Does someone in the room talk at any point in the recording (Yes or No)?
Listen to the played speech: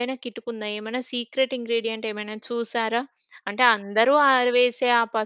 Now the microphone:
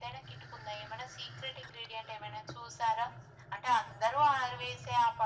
No